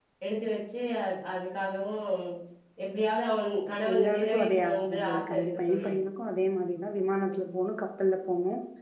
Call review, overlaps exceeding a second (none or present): present